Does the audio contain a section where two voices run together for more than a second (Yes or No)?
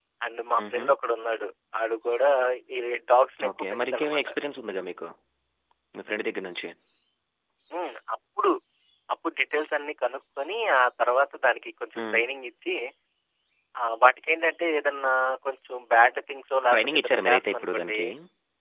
Yes